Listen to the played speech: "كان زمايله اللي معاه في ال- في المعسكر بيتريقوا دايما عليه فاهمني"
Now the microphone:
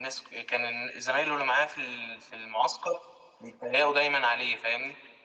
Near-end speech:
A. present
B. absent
B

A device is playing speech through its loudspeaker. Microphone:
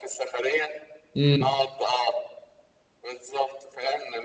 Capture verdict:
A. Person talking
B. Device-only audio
A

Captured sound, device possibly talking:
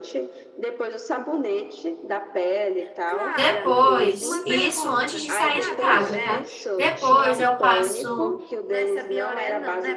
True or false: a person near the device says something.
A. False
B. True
B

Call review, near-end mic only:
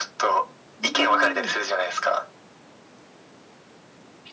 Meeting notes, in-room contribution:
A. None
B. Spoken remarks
B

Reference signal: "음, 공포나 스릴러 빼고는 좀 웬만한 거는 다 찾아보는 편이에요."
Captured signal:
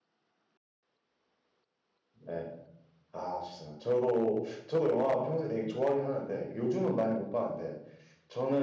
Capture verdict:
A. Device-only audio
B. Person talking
B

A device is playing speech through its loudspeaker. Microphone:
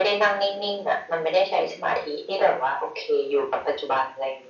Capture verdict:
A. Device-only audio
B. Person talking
A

